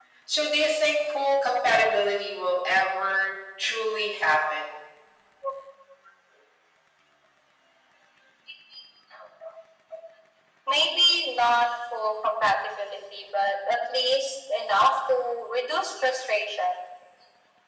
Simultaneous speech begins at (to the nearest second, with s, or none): none